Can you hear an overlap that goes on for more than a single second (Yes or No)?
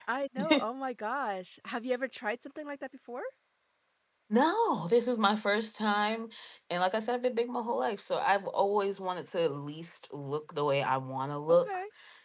No